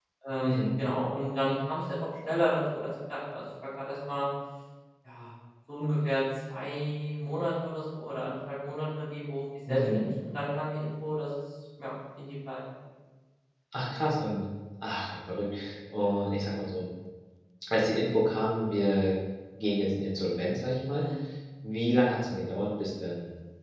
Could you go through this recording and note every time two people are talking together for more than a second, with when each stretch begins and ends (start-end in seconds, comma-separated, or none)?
none